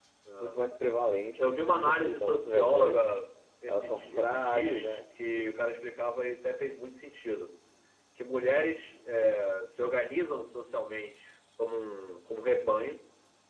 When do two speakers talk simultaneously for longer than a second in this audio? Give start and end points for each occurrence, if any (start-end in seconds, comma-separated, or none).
1.4-3.1, 3.7-5.0